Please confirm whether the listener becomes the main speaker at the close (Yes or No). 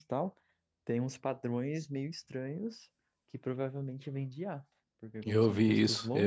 Yes